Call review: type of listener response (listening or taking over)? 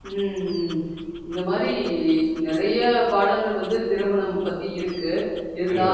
listening